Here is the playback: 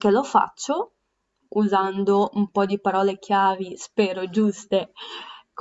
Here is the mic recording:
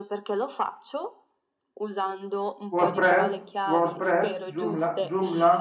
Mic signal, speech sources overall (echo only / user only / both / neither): both